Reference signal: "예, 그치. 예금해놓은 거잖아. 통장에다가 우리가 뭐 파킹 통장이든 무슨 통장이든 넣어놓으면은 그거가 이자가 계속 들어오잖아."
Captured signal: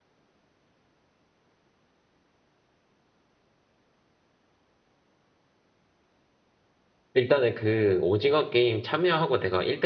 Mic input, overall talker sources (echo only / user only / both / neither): user only